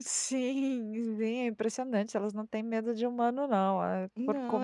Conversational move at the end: taking over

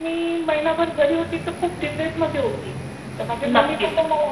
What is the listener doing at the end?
listening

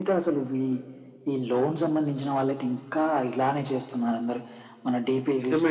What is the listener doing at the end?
taking over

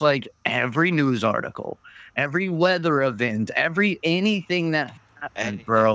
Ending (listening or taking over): listening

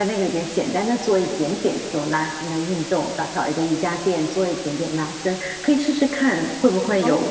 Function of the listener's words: taking over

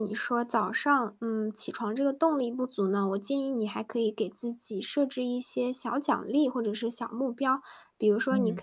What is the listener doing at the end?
listening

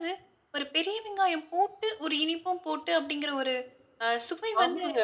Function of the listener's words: taking over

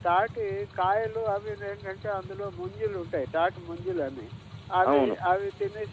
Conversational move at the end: listening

